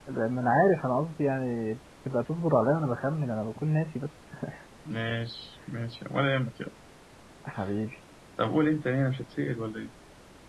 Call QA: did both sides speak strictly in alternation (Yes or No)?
Yes